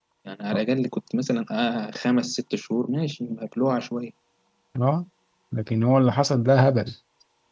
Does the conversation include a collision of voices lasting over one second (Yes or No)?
No